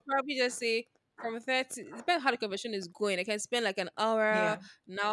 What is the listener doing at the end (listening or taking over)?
listening